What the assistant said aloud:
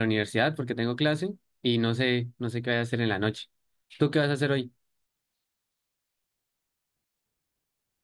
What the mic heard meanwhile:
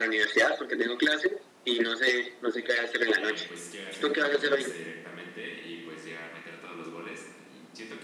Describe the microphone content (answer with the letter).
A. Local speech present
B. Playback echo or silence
A